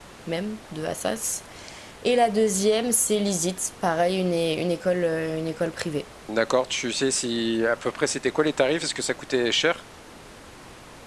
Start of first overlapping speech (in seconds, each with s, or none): none